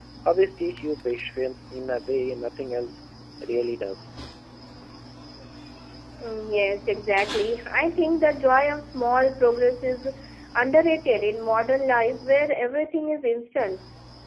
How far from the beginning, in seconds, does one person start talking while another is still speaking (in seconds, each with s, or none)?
none